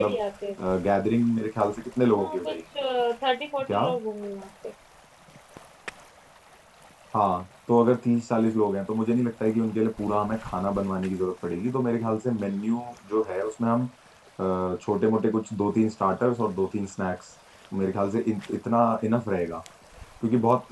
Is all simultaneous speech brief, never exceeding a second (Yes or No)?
Yes